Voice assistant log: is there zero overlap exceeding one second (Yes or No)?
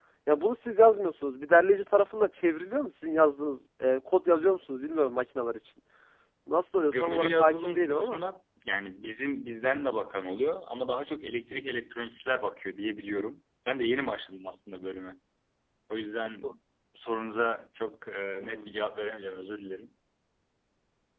No